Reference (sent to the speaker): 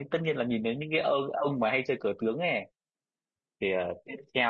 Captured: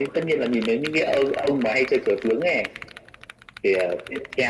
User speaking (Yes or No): No